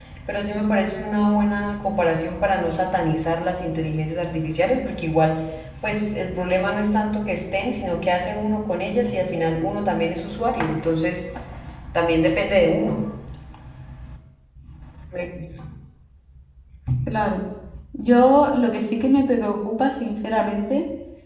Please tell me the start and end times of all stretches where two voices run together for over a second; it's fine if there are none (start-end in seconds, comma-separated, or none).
none